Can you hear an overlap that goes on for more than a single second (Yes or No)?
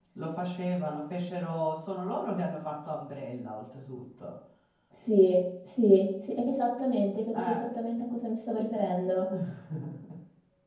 No